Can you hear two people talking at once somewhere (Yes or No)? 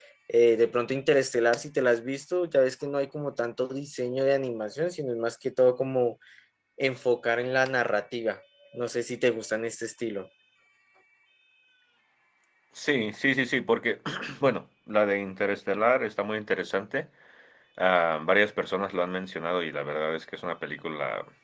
No